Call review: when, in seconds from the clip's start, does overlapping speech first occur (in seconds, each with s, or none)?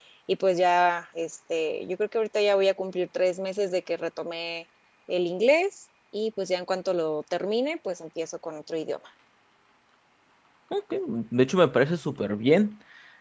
none